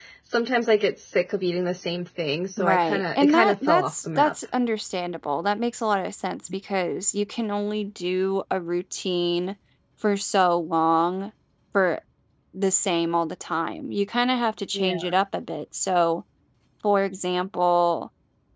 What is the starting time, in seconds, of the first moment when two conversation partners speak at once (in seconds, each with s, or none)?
2.6 s